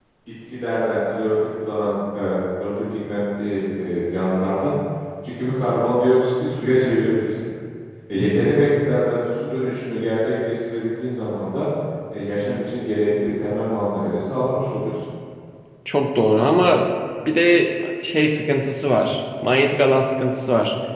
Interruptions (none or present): none